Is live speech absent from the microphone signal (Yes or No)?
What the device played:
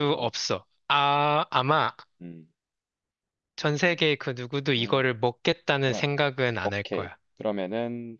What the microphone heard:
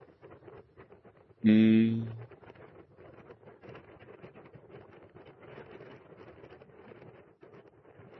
No